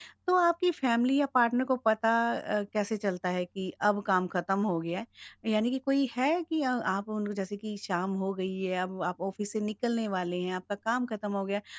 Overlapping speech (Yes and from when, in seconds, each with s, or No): No